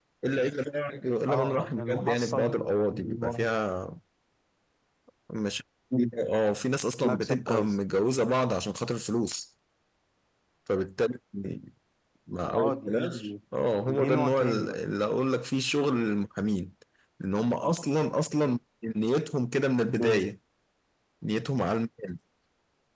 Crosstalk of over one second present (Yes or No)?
Yes